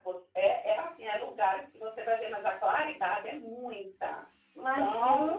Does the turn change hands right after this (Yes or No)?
Yes